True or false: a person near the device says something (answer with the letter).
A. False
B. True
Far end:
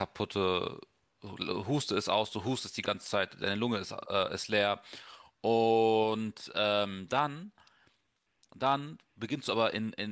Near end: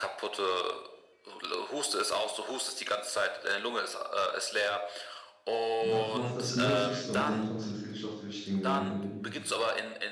B